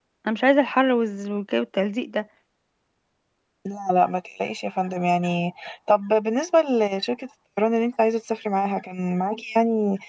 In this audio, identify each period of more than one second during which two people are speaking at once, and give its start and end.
none

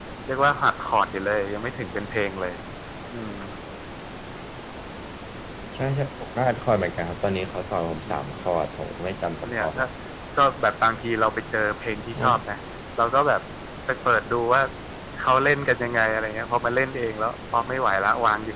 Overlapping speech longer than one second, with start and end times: none

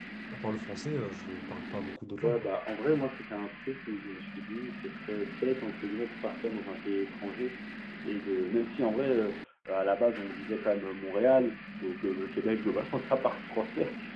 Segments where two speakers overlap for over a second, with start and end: none

